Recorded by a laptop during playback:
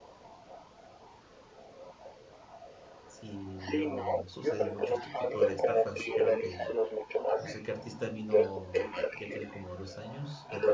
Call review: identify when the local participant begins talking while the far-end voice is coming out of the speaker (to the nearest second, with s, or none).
3 s